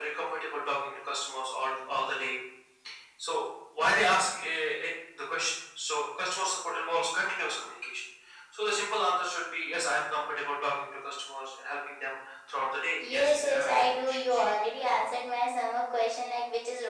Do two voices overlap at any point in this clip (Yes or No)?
Yes